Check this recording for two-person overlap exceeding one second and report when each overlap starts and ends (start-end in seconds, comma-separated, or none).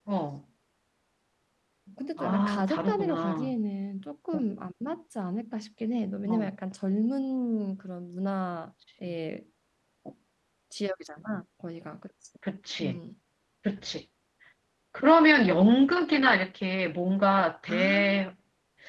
2.2-3.5